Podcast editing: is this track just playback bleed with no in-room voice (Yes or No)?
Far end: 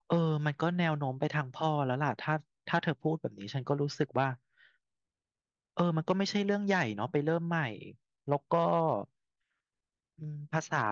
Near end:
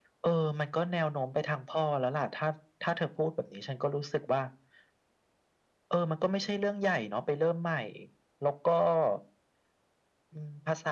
Yes